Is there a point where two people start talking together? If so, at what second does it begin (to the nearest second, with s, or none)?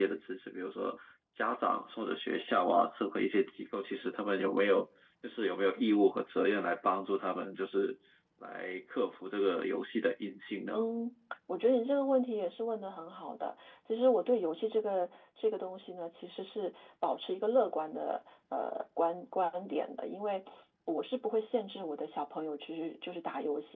none